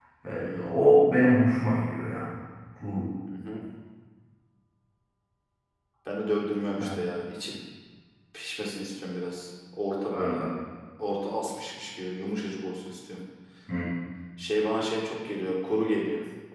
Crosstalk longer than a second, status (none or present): none